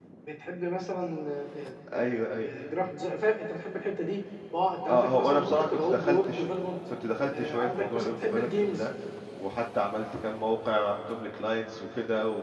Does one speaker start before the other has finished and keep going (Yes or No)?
Yes